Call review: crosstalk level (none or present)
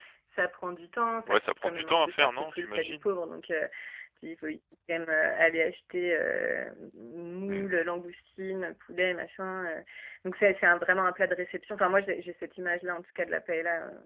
present